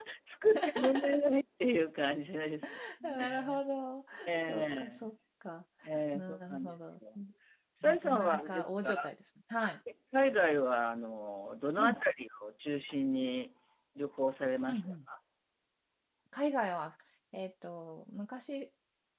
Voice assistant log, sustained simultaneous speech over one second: present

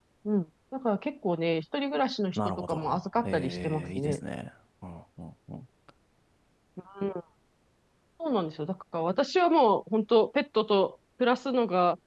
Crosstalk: present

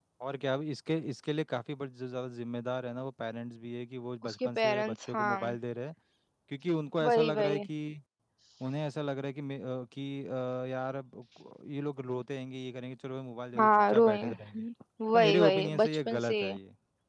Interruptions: present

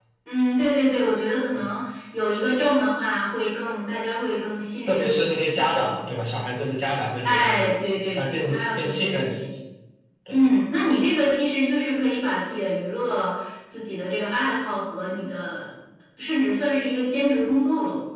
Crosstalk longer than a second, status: present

